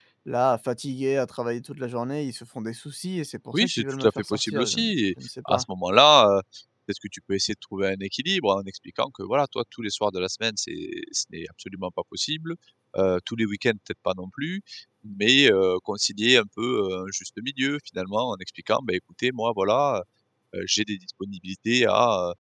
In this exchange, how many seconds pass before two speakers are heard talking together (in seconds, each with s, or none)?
3.5 s